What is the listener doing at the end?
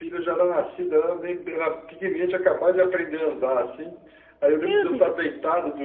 listening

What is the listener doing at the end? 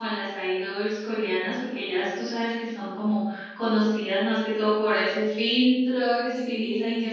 listening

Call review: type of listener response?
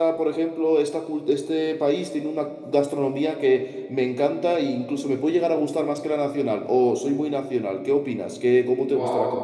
taking over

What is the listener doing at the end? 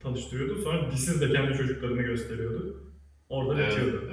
taking over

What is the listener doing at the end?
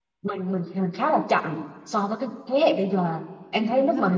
listening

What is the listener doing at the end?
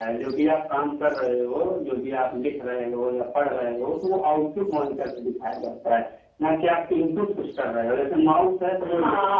taking over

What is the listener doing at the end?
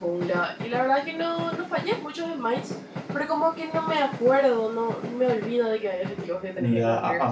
taking over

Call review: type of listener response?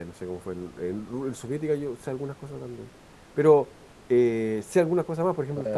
taking over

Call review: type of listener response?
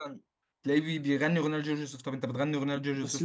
taking over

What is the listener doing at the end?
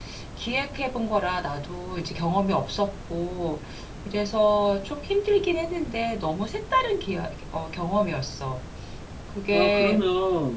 taking over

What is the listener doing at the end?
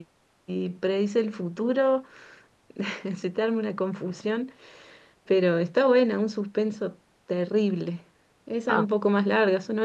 listening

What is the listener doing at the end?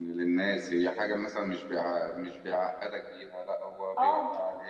listening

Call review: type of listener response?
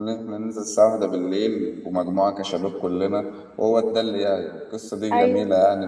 listening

